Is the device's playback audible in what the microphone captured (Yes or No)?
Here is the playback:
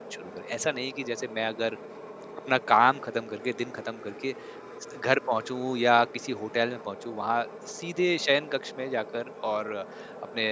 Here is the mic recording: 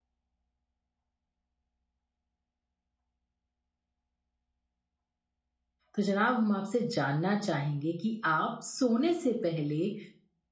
No